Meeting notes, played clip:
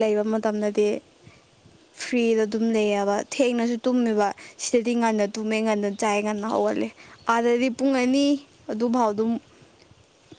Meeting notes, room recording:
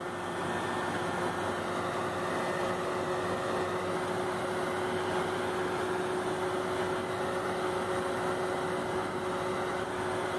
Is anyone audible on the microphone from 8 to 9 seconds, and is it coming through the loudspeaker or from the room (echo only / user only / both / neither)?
neither